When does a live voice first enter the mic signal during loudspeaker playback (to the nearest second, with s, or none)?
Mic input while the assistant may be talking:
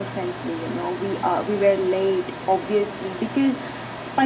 none